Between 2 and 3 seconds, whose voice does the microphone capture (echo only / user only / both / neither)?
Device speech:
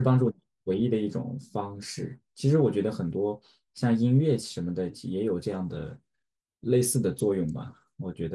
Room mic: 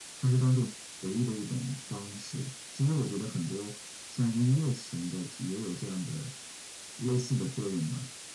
echo only